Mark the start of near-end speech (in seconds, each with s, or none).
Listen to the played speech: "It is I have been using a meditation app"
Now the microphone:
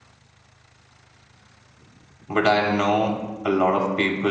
2.3 s